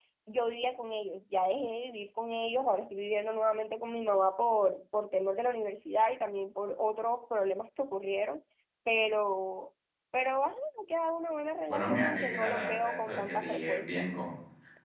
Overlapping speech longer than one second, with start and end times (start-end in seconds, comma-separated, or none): 11.7-14.1